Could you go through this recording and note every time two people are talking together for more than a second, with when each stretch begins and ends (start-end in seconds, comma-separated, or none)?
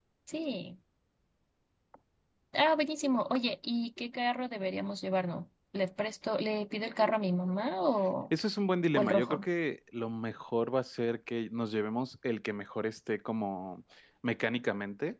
none